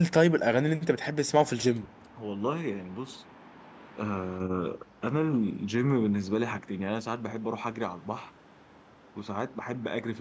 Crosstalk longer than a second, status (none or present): none